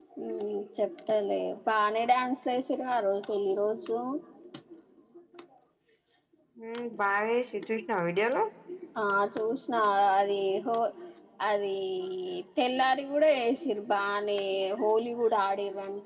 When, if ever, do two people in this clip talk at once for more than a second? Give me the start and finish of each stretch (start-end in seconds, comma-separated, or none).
none